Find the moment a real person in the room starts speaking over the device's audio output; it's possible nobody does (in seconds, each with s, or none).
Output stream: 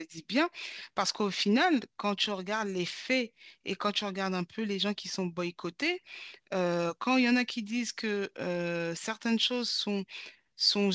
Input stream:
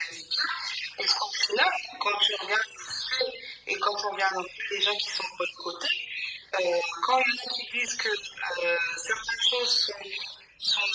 none